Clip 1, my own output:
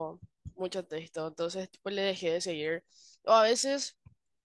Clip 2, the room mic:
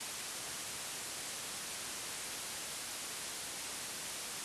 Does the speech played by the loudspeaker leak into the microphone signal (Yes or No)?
No